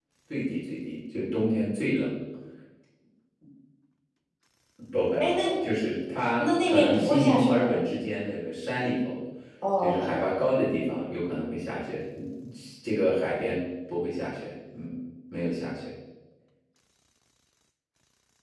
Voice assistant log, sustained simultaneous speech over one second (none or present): present